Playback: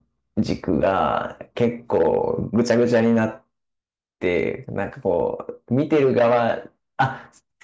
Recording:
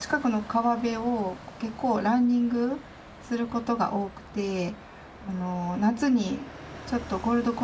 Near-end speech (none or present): present